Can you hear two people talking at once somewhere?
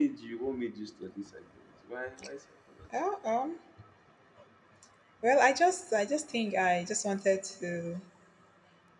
No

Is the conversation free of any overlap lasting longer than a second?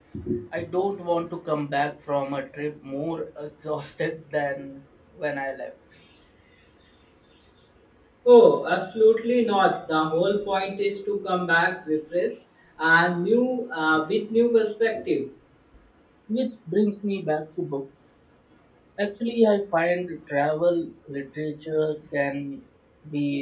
Yes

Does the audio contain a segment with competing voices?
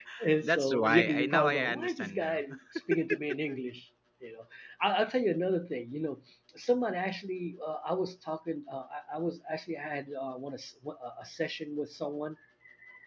Yes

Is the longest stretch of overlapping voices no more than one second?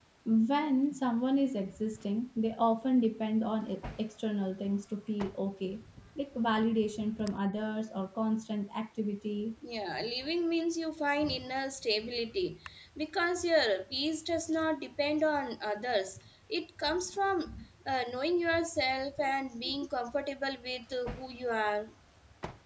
Yes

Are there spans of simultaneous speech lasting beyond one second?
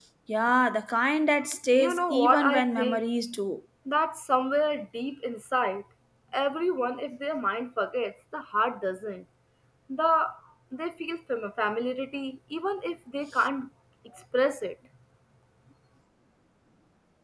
Yes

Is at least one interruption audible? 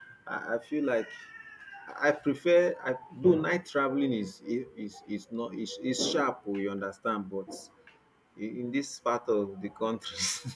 No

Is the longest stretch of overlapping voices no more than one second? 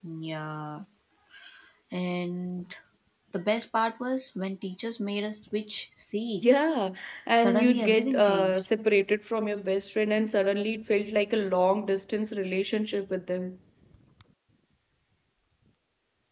No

